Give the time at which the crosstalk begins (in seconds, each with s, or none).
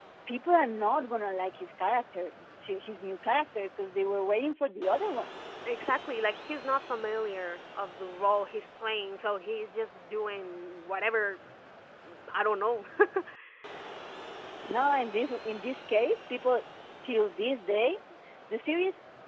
none